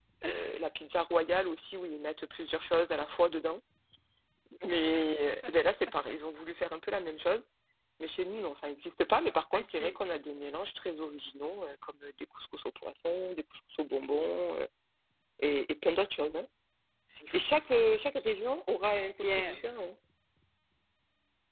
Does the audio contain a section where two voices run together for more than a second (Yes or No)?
No